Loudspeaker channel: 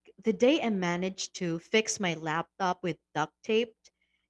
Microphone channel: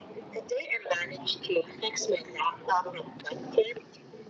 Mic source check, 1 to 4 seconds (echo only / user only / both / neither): echo only